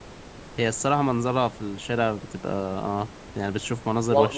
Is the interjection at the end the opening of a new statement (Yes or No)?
Yes